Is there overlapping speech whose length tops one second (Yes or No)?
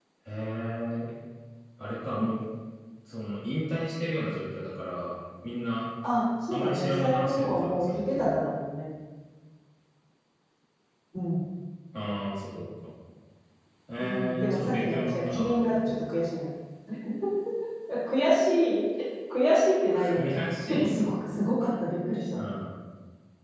Yes